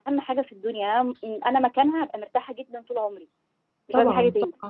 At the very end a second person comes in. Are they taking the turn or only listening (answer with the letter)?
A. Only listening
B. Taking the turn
B